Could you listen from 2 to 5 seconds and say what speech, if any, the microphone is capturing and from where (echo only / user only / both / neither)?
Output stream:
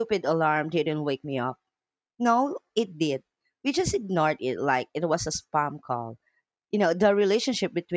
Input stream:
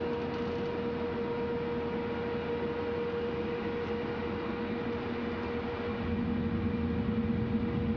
neither